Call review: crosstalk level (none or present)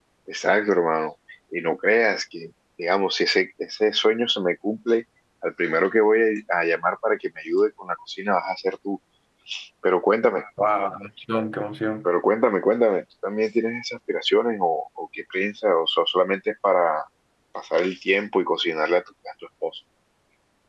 none